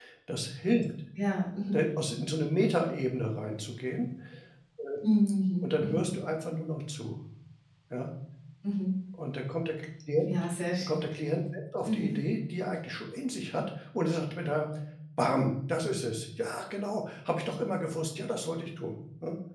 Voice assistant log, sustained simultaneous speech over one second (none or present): none